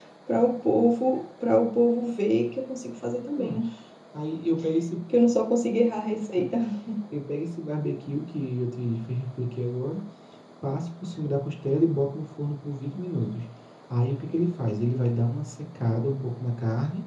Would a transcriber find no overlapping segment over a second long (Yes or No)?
Yes